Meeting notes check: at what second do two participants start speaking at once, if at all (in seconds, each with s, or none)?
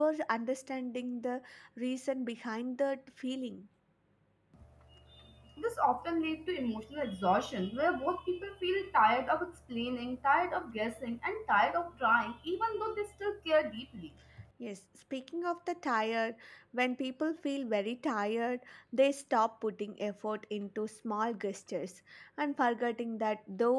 none